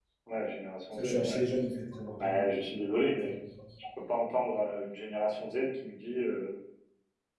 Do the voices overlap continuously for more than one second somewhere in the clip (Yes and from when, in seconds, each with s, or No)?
No